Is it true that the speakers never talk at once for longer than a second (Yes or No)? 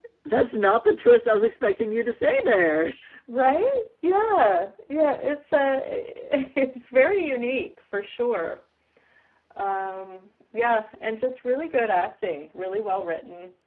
Yes